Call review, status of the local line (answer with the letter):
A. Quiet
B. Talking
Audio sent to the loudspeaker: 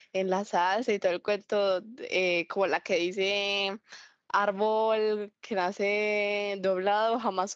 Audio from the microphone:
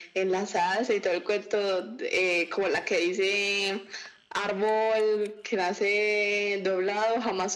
A